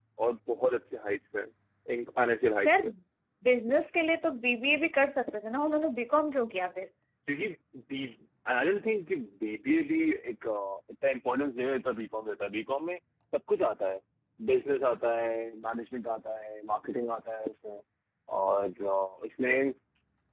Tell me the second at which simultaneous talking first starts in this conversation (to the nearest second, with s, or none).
none